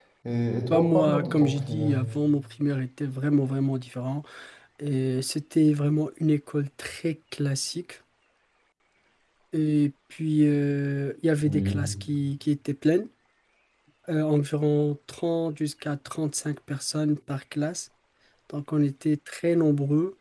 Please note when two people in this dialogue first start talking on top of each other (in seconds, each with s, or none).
0.7 s